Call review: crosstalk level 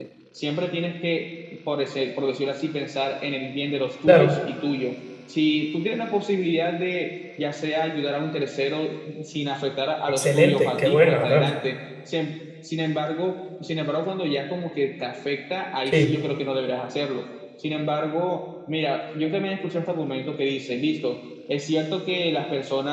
present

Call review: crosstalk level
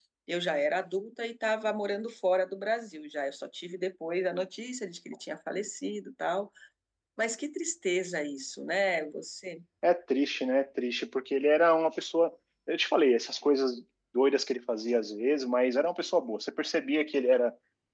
none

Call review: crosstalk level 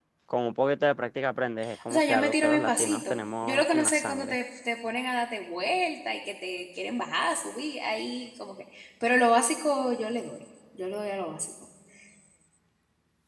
present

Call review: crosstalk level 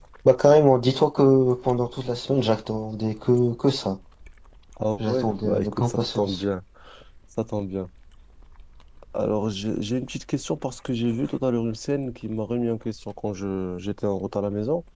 present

